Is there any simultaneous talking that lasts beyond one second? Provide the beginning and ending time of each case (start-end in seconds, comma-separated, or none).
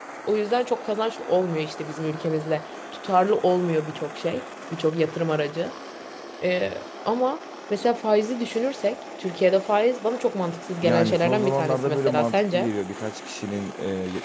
10.8-12.7